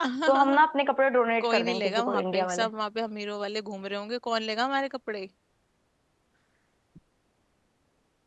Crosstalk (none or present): present